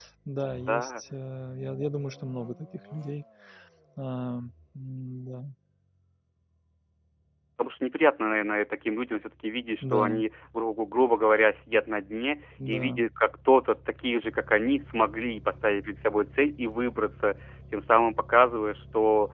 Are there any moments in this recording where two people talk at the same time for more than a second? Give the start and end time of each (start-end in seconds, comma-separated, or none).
none